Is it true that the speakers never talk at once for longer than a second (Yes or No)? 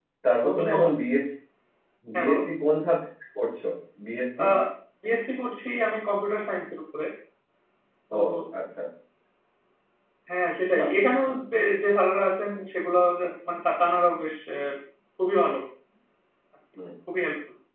Yes